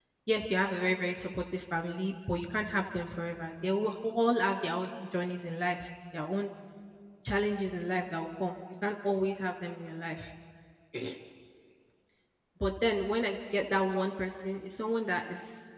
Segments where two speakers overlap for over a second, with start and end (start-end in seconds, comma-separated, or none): none